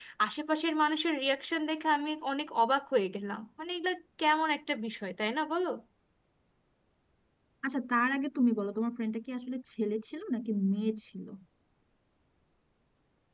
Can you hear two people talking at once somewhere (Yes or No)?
No